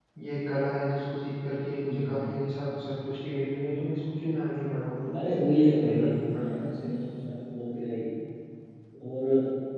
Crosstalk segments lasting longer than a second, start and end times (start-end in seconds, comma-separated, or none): 5.1-6.9